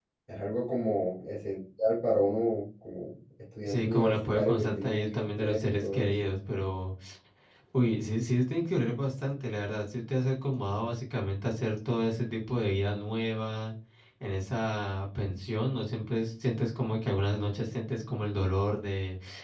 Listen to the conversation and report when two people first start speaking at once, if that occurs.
4 s

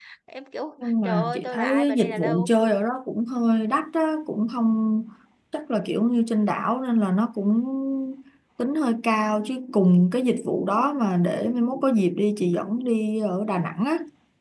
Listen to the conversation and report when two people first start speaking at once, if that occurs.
1 s

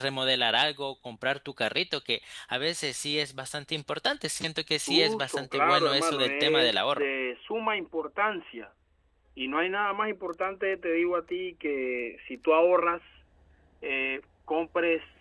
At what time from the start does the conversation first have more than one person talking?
5 s

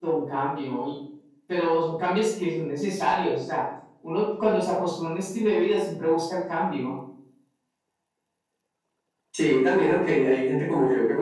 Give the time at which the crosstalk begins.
none

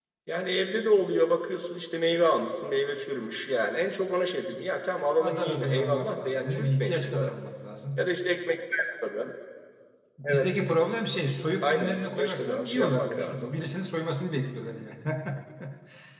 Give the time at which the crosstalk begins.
5 s

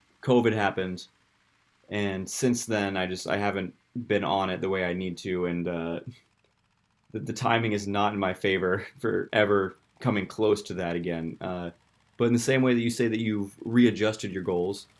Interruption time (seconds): none

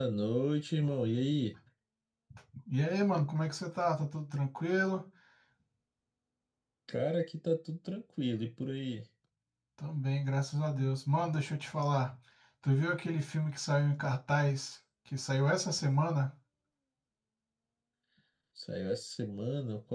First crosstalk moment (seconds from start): none

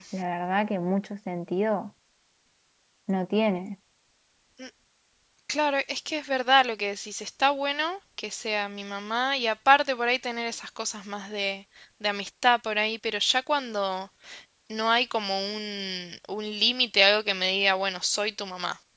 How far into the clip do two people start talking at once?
none

